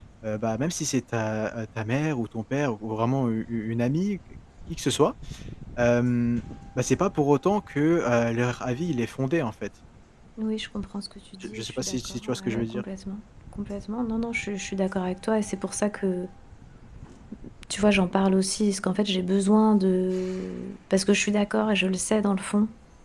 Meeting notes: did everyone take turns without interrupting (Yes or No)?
No